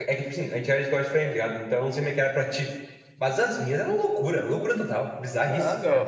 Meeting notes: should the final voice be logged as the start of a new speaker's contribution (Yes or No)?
Yes